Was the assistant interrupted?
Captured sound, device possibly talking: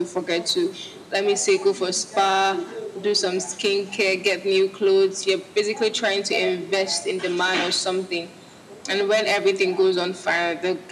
No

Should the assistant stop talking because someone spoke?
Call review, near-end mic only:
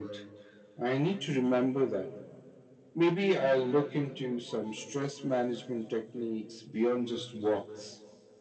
No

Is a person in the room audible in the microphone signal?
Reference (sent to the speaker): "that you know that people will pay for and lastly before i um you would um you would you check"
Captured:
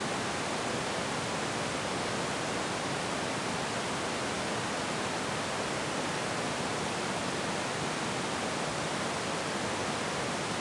No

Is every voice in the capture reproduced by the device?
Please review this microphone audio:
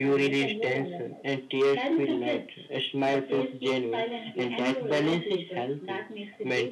Yes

